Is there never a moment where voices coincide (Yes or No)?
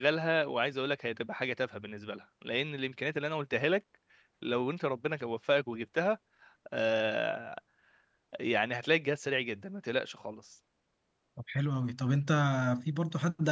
Yes